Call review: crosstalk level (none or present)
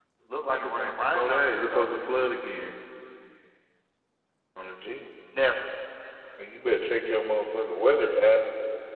present